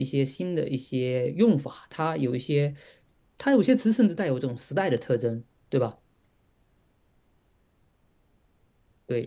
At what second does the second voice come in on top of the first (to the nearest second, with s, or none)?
none